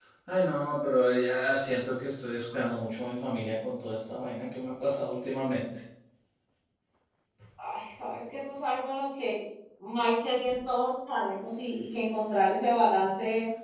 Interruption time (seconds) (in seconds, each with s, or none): none